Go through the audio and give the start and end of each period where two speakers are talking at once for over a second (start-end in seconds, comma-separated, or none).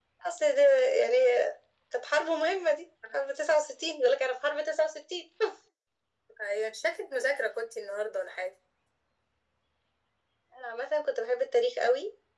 none